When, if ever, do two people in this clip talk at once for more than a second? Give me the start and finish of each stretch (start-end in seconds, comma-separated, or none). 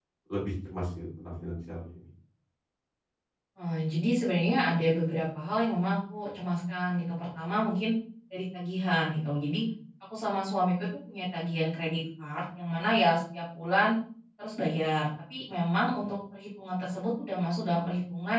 none